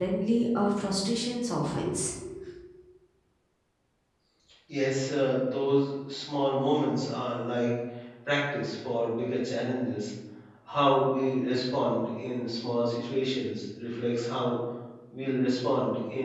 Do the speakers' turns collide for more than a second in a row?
No

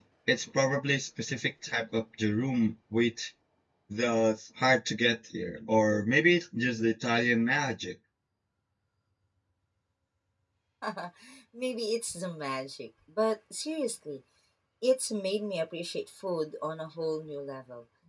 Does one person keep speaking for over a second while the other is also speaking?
No

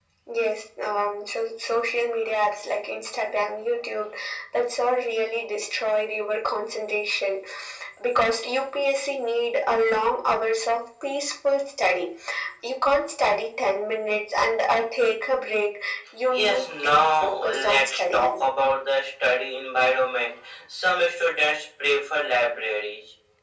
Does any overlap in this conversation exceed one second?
Yes, from 16.3 s

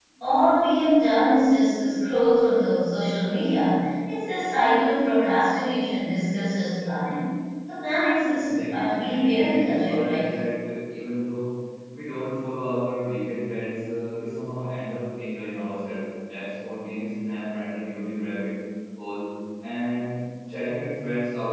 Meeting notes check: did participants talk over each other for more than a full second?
Yes, from 8.4 s

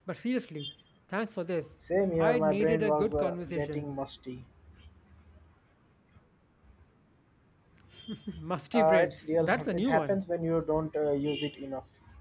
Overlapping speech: Yes, from 2.2 s

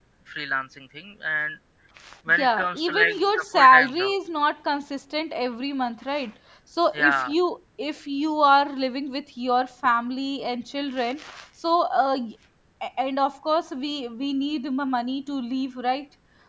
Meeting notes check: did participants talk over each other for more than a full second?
Yes, from 2.3 s

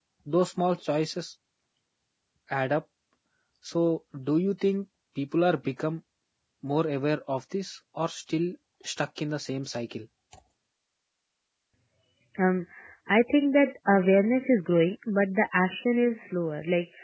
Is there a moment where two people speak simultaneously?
No

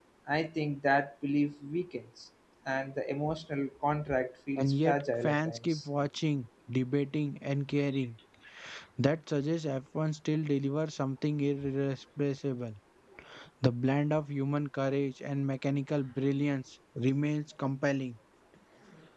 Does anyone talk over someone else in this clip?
Yes, from 4.6 s

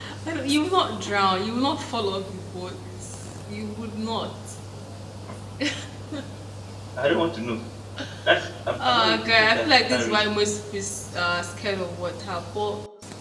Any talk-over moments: Yes, from 8.8 s

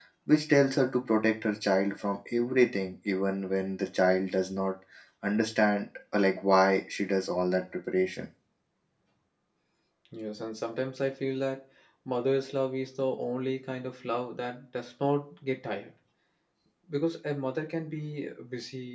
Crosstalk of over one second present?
No

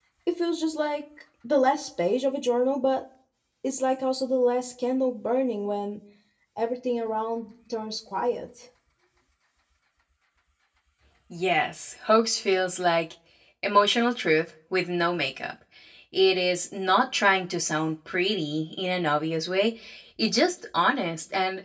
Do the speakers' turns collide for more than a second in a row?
No

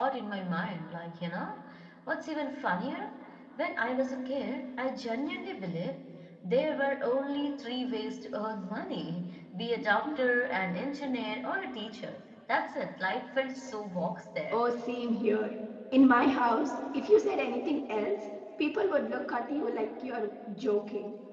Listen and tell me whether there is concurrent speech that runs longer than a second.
No

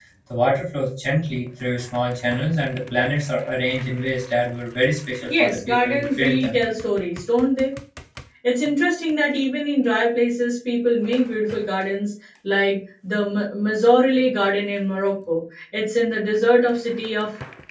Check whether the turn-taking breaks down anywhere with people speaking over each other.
Yes, from 5.3 s

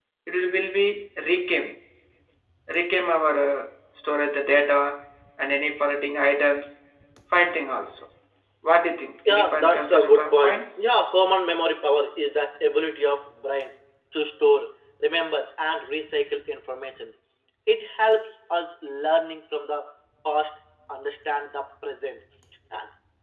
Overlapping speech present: Yes, from 9.2 s

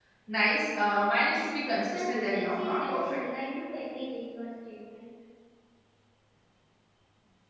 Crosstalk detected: Yes, from 1.9 s

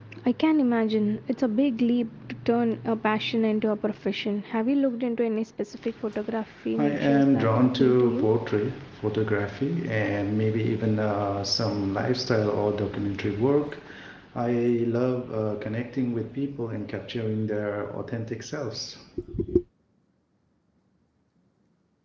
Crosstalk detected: Yes, from 6.8 s

